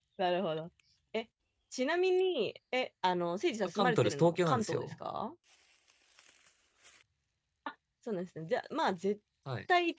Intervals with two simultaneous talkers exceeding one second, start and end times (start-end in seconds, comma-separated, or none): 3.7-4.9